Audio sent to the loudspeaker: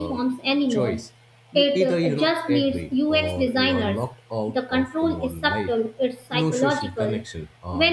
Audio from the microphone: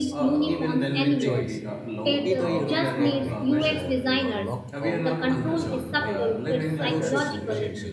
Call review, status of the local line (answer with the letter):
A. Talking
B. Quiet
A